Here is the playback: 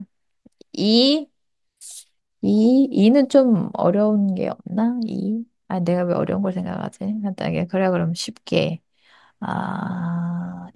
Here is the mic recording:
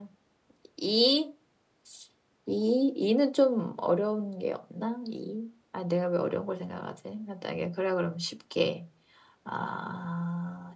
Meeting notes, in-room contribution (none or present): none